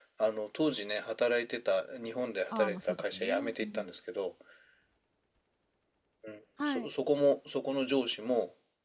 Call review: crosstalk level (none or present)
present